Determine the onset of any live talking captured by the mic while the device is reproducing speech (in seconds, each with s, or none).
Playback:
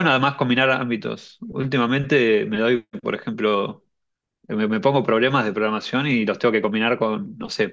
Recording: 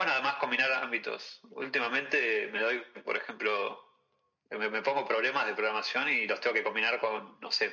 none